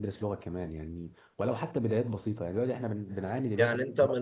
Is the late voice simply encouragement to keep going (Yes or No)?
No